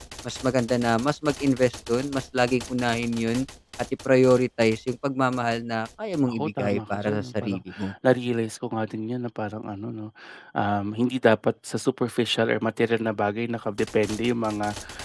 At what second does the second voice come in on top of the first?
6.3 s

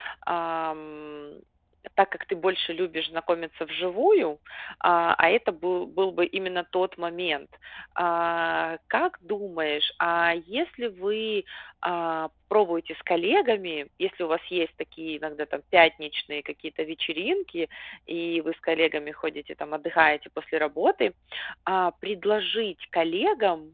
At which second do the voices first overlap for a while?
none

